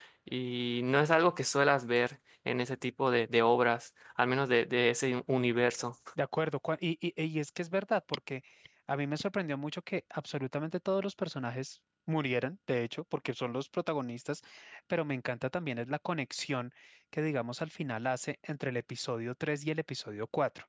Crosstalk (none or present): none